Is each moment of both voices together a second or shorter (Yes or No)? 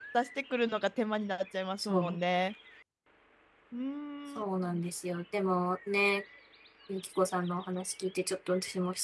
Yes